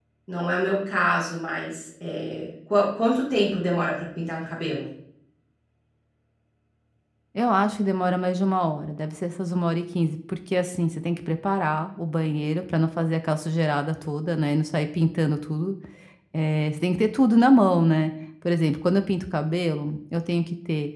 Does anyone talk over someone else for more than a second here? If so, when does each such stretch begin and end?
none

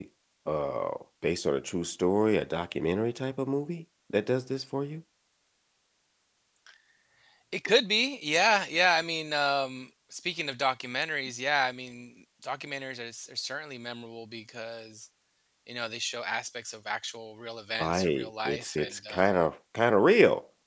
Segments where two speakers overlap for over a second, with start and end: 17.8-19.3

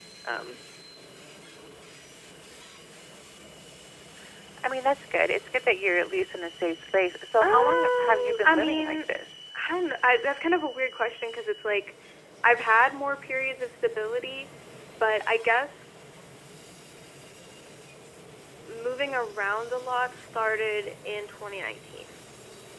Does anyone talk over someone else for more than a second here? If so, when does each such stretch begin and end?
7.4-9.0

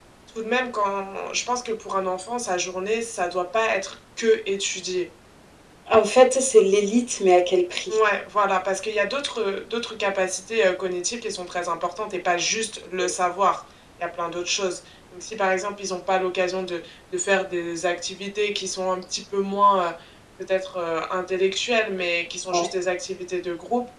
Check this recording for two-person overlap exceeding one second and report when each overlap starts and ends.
none

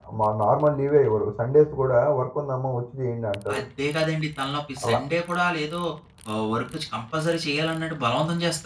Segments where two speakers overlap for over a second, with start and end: none

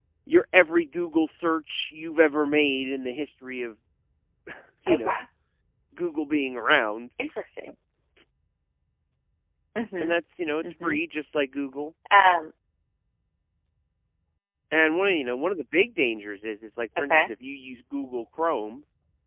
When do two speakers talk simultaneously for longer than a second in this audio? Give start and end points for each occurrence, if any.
none

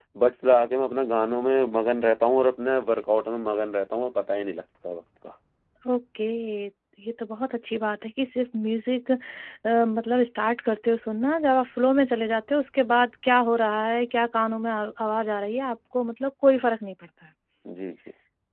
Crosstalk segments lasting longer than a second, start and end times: none

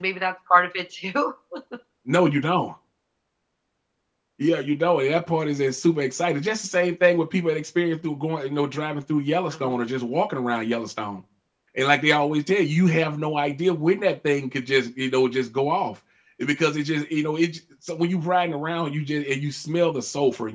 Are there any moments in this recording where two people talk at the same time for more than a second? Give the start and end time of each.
none

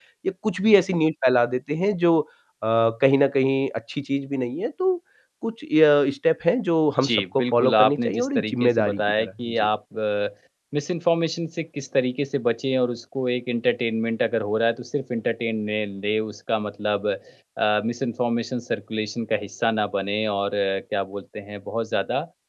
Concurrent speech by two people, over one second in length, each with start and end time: 7.0-9.7

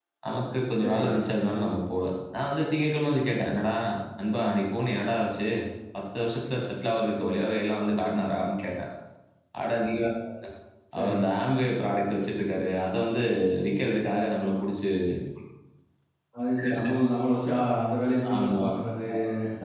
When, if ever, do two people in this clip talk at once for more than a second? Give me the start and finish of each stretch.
none

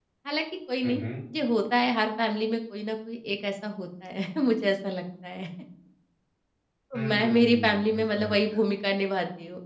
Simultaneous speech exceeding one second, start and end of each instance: 6.9-8.3

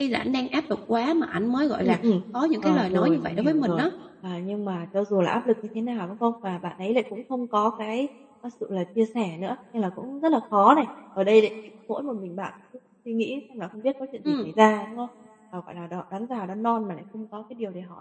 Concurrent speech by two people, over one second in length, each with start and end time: 2.6-3.9

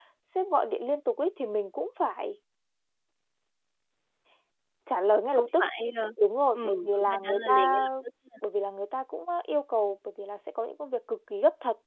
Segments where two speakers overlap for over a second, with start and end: 6.5-7.9

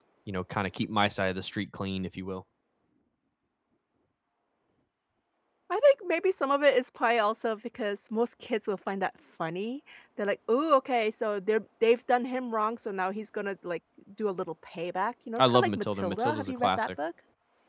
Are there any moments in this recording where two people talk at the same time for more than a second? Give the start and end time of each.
15.4-16.9

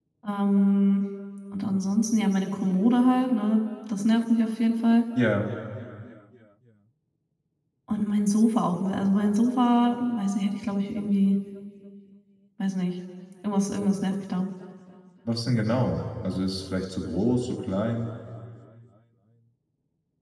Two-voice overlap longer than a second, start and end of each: none

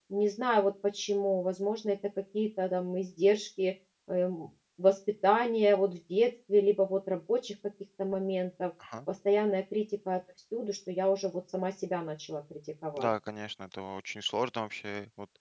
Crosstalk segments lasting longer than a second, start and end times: none

